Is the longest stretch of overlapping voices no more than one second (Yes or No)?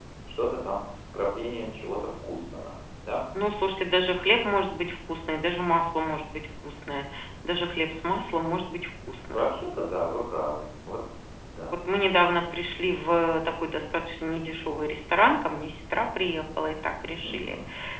Yes